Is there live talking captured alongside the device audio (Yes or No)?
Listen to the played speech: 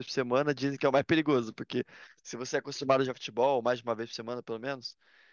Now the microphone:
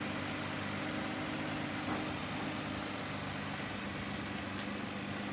No